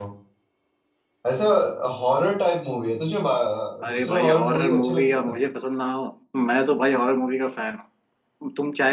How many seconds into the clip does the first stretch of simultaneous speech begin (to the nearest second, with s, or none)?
4 s